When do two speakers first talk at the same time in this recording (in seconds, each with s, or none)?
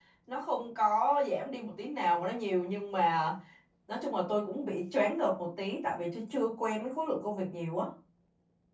none